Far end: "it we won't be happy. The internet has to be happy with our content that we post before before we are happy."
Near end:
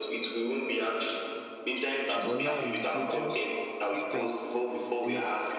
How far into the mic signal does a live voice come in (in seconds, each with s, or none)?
2.2 s